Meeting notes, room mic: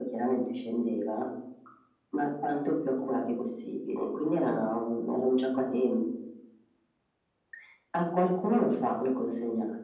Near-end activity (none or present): none